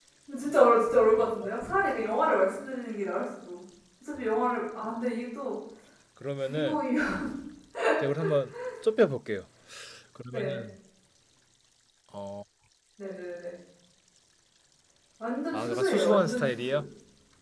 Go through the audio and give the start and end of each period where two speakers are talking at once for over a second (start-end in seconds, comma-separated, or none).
15.5-16.8